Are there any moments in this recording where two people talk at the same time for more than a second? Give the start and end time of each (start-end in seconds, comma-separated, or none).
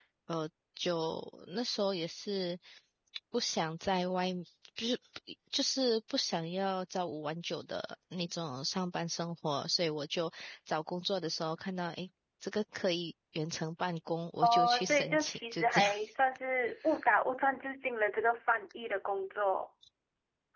14.4-15.9